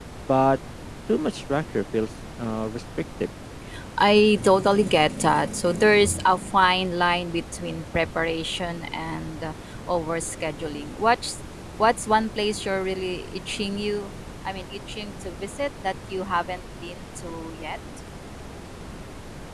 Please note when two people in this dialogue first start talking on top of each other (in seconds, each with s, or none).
none